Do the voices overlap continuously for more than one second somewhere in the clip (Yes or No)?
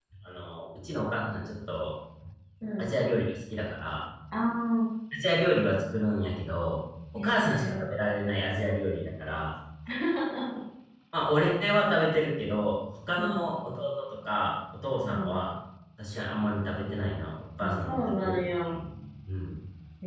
Yes